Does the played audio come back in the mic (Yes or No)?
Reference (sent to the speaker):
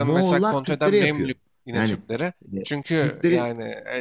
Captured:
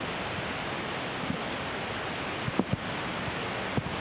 No